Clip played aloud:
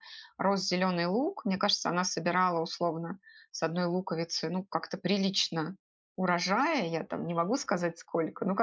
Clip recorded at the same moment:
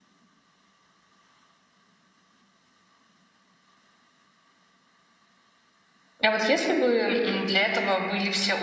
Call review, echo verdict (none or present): none